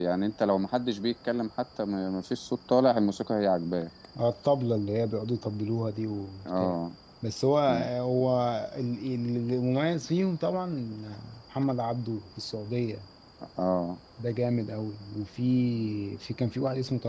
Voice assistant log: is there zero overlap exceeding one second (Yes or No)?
Yes